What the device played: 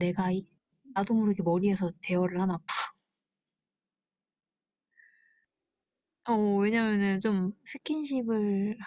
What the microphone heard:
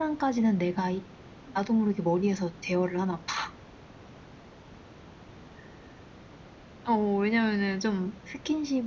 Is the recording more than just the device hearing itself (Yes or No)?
No